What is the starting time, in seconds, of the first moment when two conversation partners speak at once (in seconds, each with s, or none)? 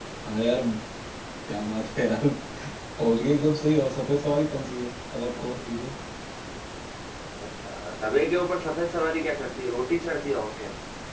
none